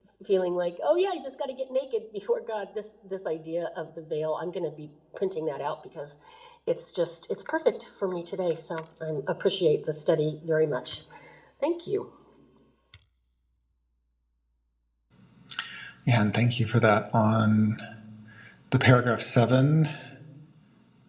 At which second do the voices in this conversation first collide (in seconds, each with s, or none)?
none